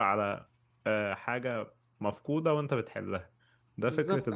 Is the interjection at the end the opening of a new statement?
Yes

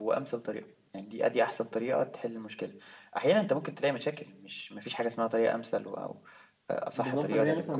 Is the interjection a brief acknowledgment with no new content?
No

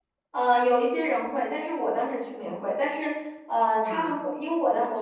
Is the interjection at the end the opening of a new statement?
No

